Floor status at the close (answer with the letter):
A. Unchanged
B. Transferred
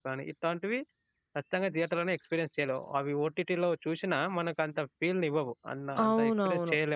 B